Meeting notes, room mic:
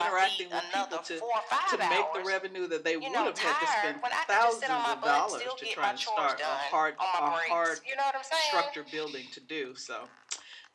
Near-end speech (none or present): present